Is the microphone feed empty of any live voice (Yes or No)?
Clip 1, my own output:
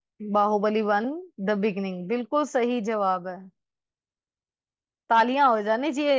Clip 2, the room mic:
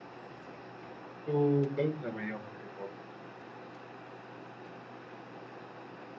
No